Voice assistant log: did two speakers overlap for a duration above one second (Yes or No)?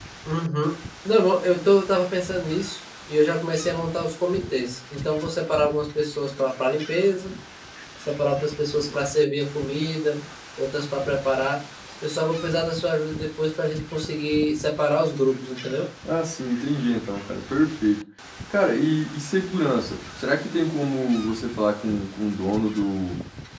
No